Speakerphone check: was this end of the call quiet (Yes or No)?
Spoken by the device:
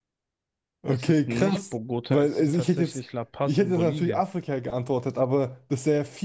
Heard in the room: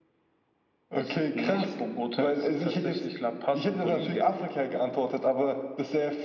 Yes